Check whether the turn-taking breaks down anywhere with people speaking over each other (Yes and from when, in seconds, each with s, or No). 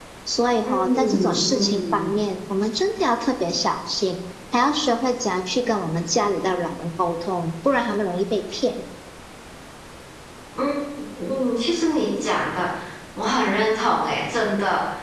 Yes, from 0.7 s